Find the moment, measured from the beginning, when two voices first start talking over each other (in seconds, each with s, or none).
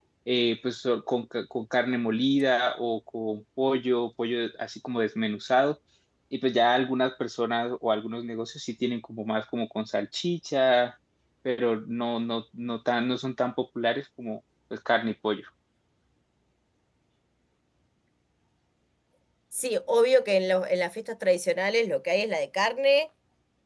none